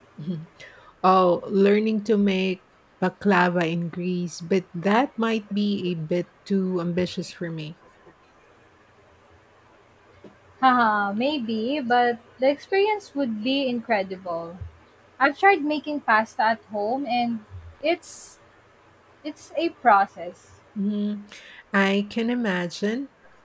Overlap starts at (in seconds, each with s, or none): none